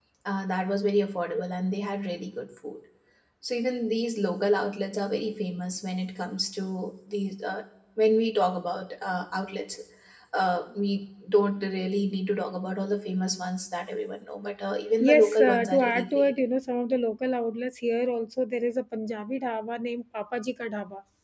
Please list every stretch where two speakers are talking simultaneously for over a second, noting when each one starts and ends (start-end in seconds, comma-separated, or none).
15.0-16.3